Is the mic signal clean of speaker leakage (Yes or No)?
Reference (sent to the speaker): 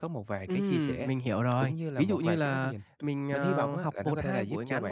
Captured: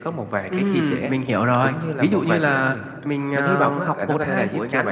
No